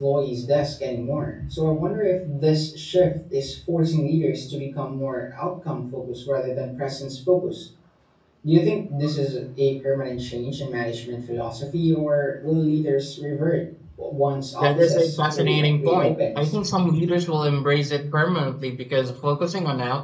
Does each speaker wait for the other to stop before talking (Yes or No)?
No